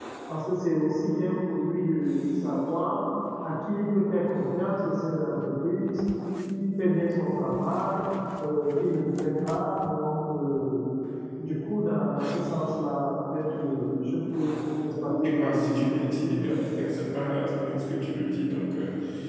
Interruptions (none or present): present